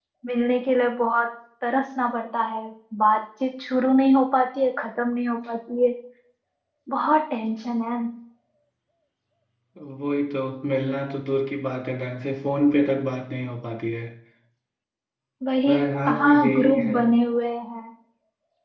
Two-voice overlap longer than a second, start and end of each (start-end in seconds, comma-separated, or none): 15.7-16.9